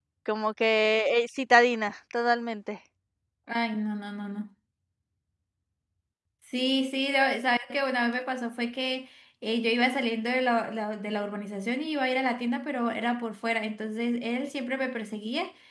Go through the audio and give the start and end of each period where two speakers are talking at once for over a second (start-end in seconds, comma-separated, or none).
none